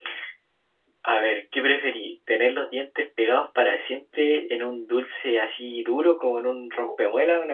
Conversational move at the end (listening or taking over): listening